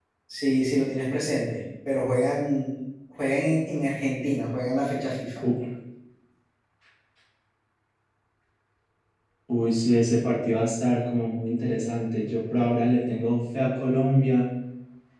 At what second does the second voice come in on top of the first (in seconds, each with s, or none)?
none